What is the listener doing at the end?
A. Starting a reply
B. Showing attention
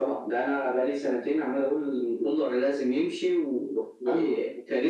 A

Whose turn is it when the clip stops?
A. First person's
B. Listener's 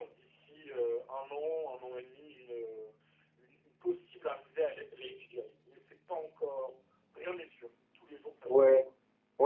B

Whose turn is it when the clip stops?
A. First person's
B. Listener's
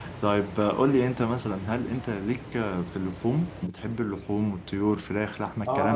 B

